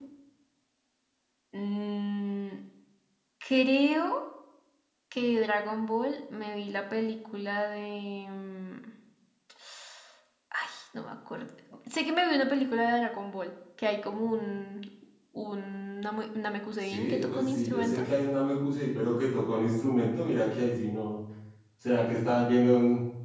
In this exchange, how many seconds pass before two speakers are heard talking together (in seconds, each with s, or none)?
16.8 s